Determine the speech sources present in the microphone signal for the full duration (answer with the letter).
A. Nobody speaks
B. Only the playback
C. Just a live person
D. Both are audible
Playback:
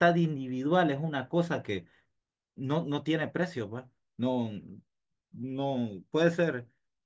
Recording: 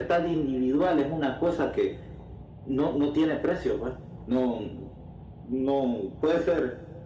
B